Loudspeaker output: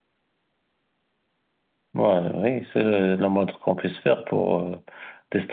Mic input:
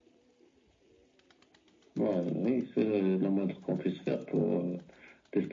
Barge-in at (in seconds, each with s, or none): none